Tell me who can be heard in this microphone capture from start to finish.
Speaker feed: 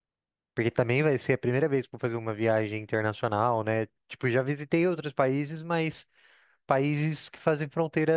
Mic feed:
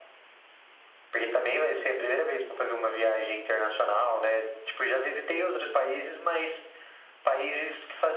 echo only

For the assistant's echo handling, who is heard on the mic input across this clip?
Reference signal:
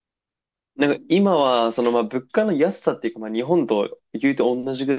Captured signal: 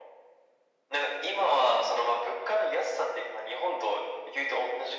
echo only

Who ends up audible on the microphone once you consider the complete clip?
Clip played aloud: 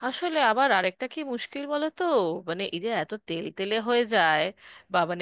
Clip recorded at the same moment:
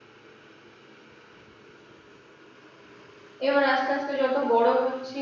user only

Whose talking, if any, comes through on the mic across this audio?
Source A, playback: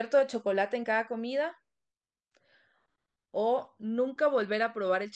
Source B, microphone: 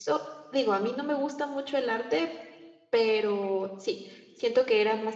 user only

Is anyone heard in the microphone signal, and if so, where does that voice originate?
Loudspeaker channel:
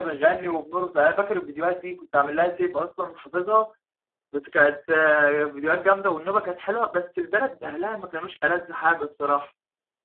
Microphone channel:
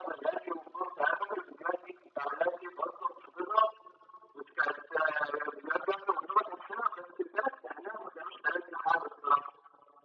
echo only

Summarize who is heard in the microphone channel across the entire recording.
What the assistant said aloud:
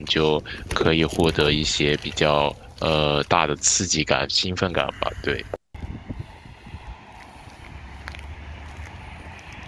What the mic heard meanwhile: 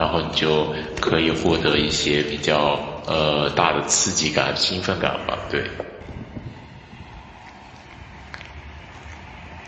echo only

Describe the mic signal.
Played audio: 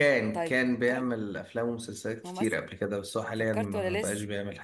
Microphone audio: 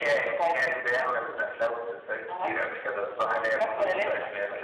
both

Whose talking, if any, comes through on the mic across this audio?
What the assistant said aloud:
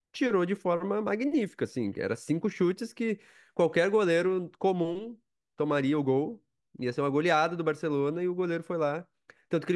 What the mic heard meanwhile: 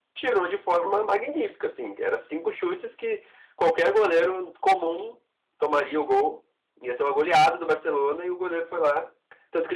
echo only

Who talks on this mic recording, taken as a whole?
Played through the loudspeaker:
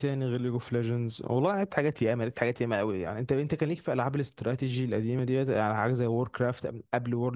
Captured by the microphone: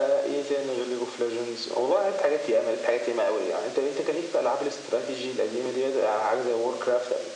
echo only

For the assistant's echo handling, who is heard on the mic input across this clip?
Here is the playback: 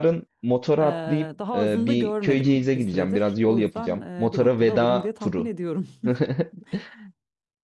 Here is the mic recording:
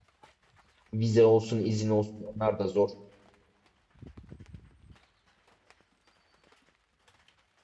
user only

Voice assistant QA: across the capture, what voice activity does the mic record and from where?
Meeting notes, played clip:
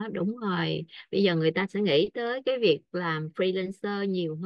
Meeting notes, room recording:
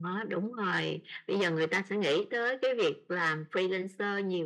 echo only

